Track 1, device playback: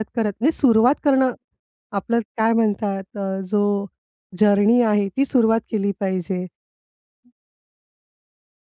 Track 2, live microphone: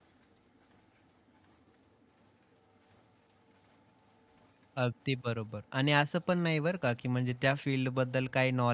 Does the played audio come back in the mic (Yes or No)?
No